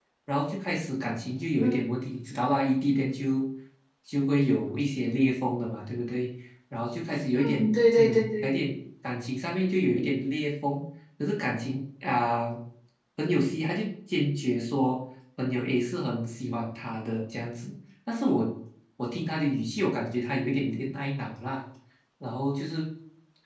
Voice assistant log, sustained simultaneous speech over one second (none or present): present